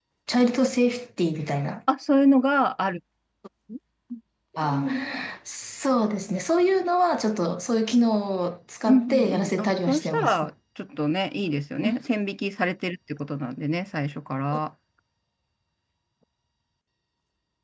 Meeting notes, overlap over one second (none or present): present